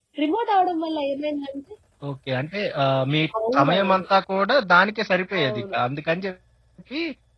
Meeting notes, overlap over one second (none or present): none